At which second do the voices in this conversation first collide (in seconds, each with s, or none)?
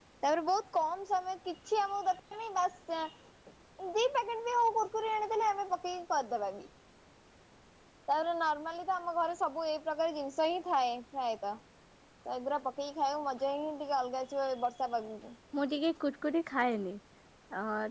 none